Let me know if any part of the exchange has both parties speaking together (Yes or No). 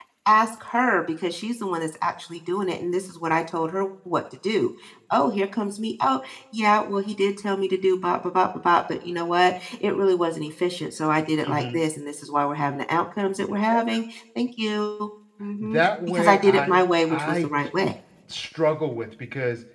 Yes